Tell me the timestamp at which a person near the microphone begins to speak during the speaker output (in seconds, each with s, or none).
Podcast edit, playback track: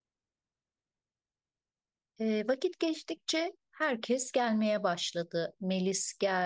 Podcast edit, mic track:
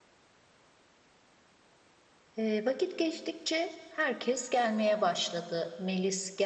none